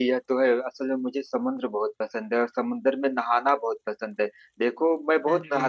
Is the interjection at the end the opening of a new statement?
No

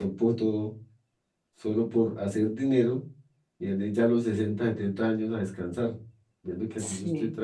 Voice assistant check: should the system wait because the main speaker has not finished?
Yes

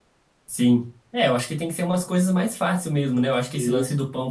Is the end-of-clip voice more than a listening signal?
No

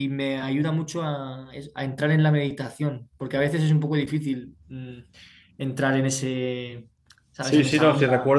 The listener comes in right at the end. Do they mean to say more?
Yes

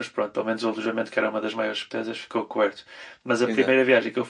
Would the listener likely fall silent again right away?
Yes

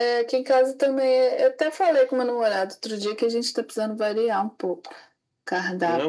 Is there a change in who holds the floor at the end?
Yes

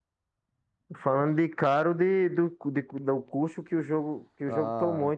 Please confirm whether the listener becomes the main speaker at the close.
Yes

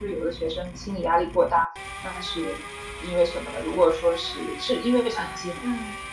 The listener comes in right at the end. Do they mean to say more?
Yes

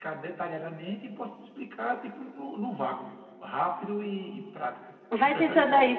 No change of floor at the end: No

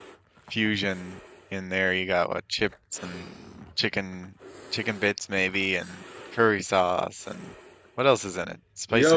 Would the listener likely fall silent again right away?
No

